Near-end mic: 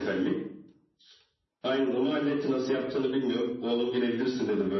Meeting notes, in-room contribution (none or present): none